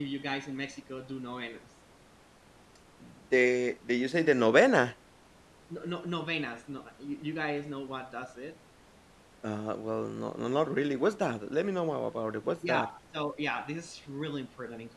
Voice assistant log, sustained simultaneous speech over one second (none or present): none